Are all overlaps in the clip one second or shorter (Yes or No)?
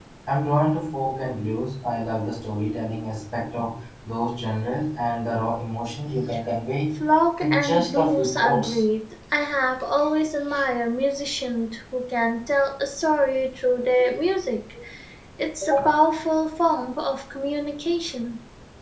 No